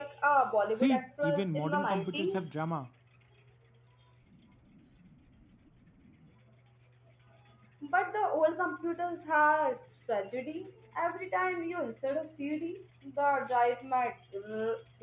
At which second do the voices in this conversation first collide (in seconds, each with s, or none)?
0.7 s